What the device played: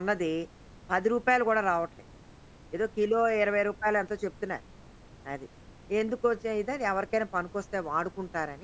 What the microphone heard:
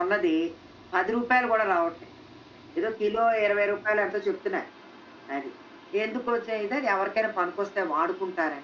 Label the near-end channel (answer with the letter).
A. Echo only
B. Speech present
A